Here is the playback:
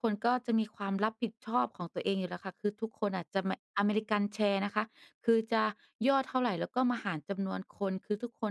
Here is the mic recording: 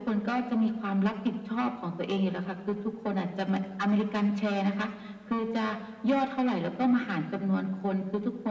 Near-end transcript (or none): none